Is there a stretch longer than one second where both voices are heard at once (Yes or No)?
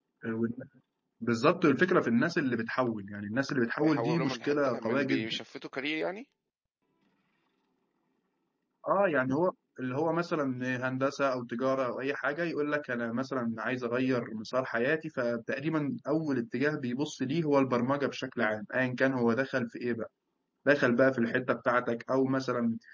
Yes